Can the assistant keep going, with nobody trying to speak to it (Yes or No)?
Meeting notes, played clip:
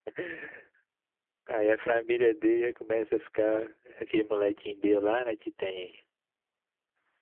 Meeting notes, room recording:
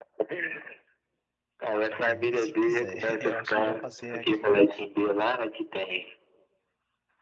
No